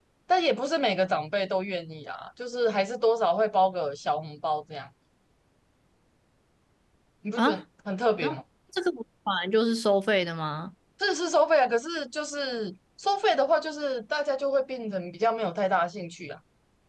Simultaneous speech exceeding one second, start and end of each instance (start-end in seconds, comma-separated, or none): none